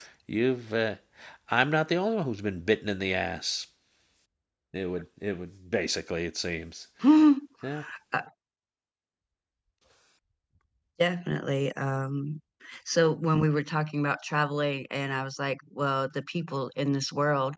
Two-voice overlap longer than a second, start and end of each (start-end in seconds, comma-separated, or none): none